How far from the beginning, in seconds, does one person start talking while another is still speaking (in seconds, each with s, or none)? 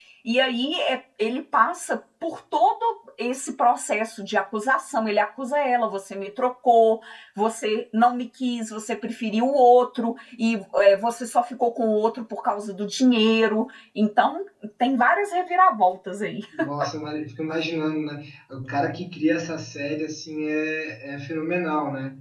none